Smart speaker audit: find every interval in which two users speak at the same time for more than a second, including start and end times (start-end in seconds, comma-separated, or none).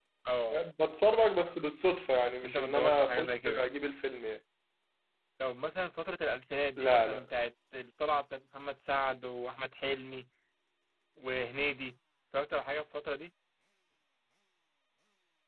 2.2-3.6